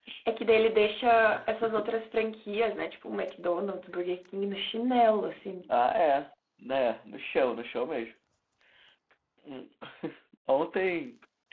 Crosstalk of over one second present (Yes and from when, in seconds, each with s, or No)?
No